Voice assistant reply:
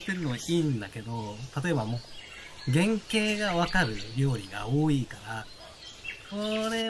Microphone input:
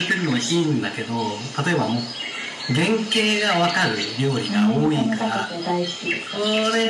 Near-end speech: present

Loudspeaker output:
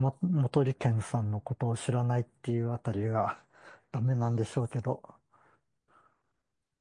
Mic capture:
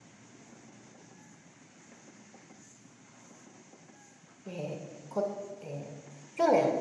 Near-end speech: present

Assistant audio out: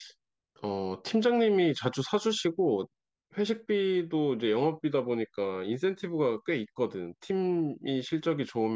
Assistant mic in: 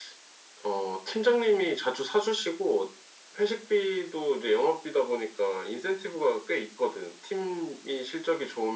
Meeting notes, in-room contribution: none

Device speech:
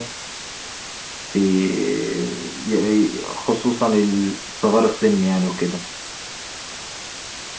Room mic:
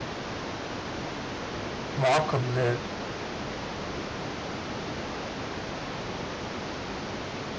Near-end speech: present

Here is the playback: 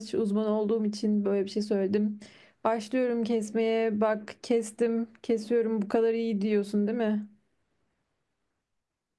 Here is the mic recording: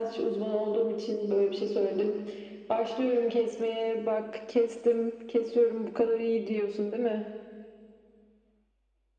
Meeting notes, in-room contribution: none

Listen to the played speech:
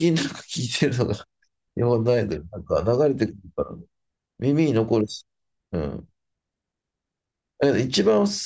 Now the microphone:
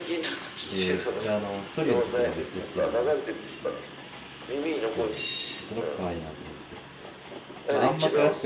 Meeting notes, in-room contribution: present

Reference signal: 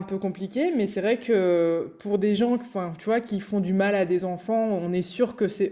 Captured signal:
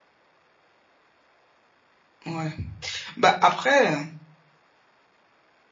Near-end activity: present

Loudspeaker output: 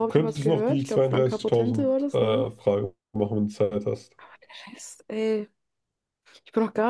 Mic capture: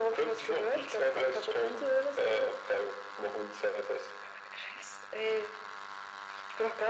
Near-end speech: none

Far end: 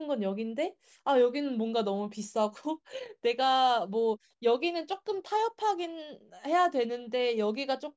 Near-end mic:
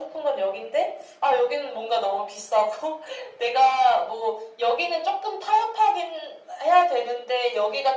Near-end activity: none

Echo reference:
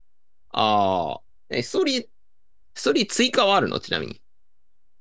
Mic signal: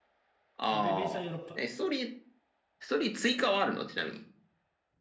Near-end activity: present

